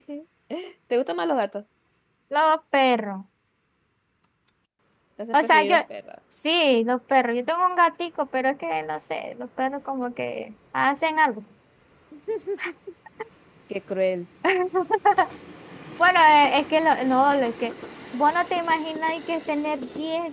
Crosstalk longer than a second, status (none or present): none